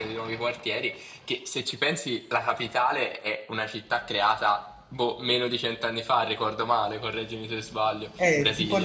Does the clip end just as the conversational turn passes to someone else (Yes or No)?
Yes